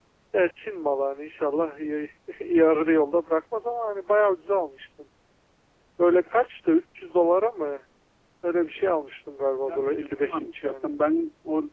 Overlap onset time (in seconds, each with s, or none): 9.7 s